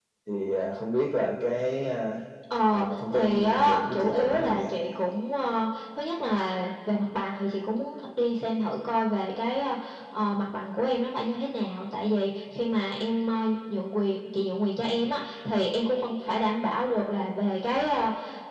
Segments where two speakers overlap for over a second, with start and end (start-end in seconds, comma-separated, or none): 2.7-4.6